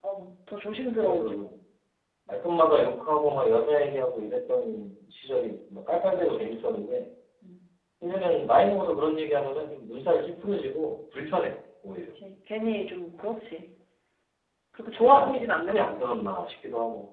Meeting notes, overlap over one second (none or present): present